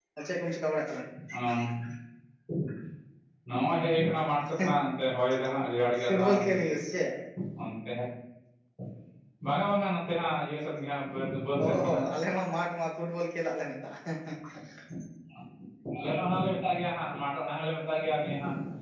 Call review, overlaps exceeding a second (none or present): none